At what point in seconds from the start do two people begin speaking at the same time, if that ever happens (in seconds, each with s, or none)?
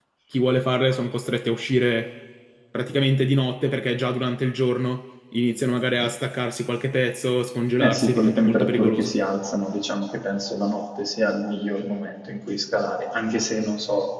7.8 s